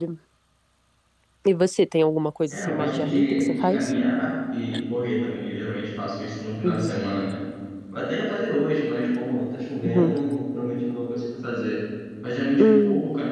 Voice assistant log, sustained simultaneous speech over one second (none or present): present